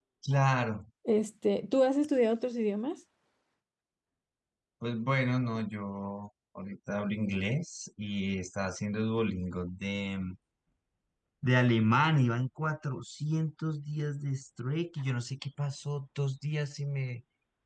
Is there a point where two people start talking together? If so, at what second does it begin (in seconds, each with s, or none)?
none